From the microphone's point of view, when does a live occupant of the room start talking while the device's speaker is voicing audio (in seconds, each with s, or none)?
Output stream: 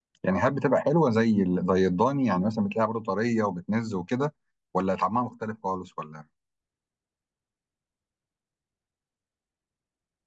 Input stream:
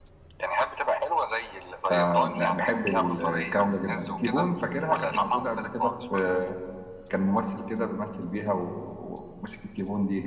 1.9 s